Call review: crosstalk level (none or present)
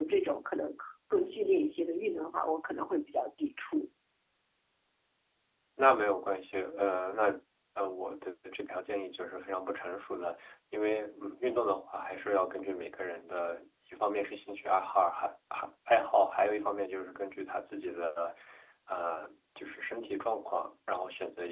none